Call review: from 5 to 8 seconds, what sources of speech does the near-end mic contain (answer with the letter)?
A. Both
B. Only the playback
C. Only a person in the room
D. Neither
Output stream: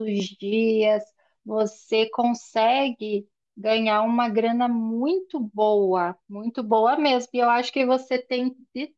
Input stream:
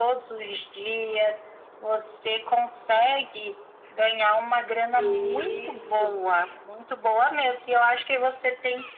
A